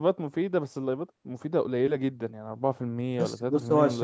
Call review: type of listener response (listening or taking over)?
taking over